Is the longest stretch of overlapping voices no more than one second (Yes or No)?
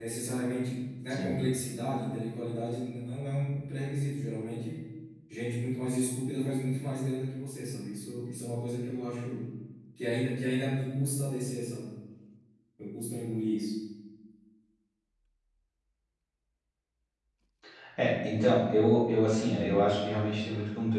Yes